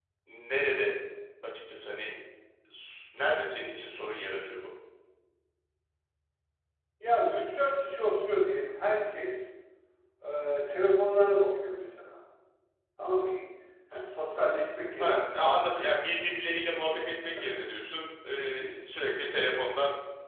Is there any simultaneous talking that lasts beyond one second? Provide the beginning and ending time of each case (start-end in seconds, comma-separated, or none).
none